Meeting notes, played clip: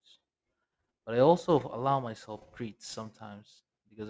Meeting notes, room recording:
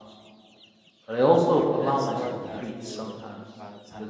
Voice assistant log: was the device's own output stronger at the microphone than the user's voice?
Yes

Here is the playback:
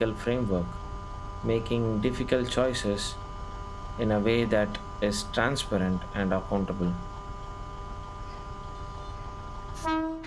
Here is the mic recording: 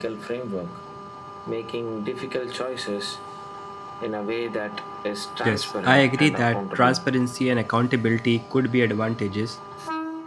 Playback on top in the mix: No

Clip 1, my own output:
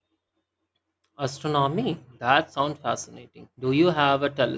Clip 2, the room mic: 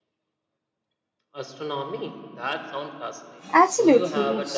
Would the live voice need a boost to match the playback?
No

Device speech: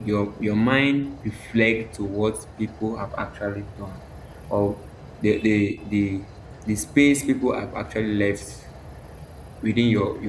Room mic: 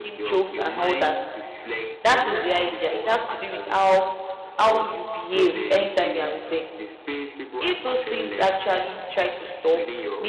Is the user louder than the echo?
Yes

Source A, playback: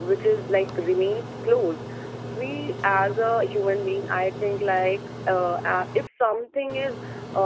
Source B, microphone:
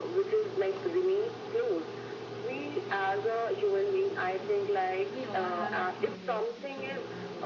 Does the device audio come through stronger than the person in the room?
Yes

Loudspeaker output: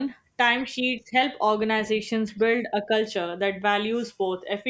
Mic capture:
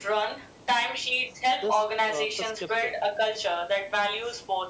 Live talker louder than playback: No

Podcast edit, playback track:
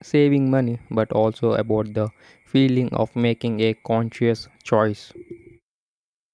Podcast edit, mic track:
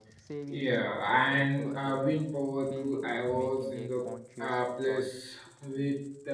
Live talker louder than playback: Yes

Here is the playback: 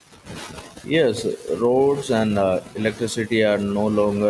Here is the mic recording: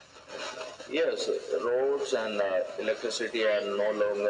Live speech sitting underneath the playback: Yes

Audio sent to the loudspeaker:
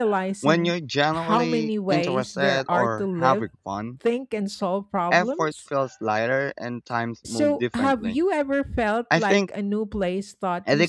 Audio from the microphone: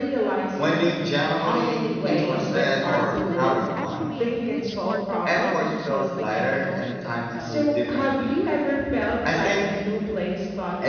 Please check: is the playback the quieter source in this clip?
No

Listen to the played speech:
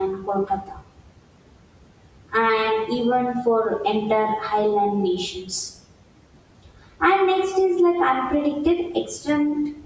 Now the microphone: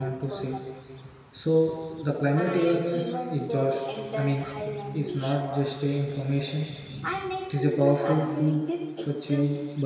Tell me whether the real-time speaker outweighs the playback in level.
Yes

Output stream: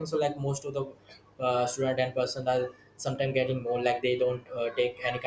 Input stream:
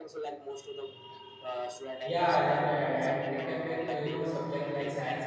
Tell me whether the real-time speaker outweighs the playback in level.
Yes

